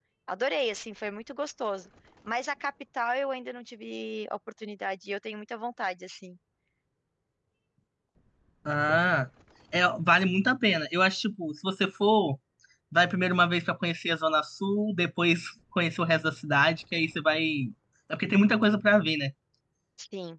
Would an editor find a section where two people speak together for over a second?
No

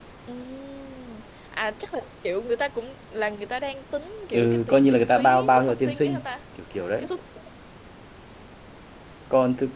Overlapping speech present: Yes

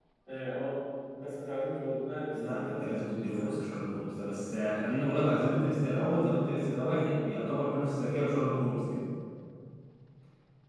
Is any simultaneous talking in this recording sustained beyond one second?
Yes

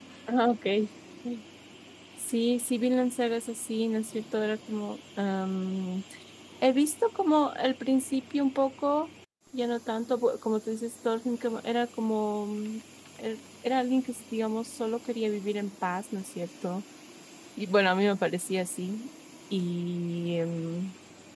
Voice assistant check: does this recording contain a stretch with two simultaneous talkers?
No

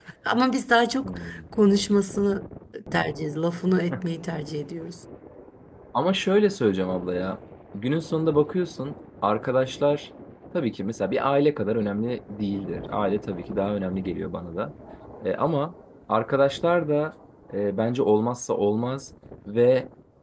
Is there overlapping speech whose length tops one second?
No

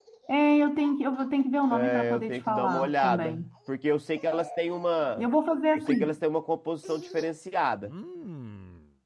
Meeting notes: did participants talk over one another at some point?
Yes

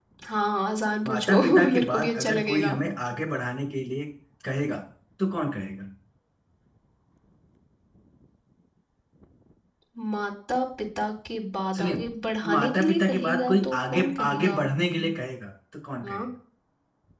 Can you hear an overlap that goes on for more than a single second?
Yes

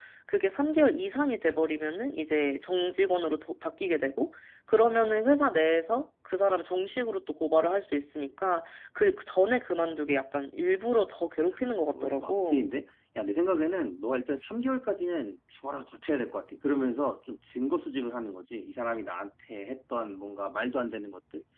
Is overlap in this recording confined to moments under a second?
No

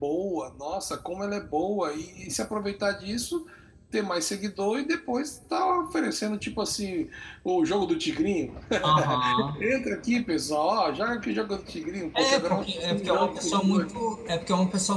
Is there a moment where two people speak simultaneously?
Yes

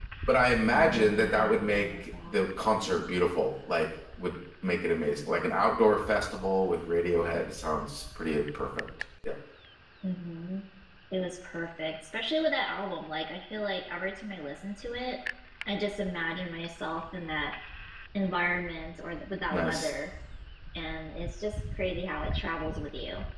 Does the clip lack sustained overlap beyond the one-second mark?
No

